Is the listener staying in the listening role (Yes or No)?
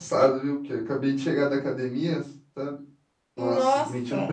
Yes